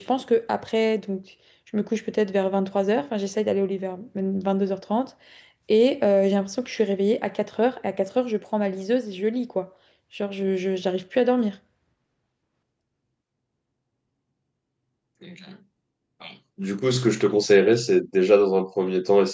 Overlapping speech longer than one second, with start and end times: none

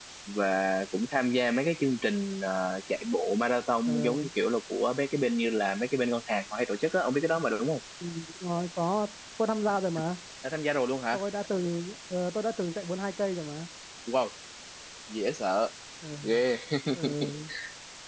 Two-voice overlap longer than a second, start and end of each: none

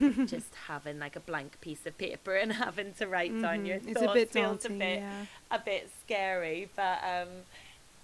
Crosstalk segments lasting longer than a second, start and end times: 3.3-5.0

